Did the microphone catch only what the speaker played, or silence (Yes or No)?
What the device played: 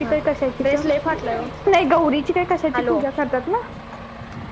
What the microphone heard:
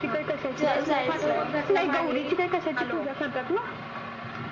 No